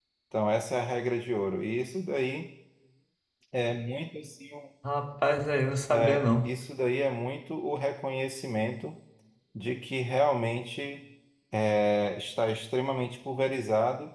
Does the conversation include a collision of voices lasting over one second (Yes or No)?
No